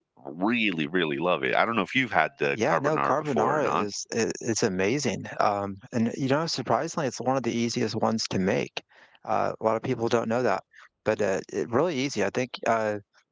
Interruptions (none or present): present